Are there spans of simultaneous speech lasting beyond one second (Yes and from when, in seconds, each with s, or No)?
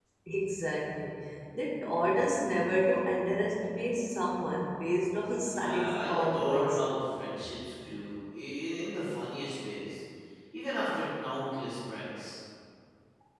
Yes, from 5.5 s